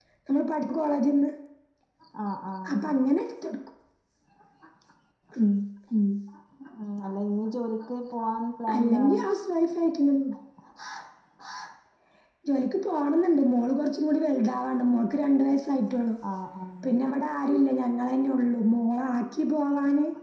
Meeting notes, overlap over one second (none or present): none